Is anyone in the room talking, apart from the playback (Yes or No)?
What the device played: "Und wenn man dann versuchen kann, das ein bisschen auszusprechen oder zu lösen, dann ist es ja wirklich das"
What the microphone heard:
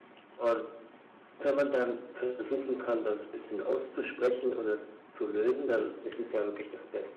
No